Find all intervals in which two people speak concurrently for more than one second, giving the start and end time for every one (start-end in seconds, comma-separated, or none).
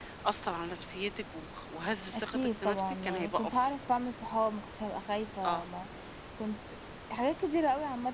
2.1-3.7